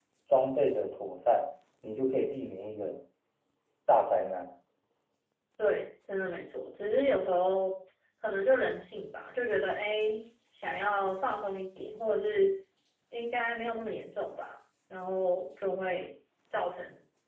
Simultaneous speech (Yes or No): No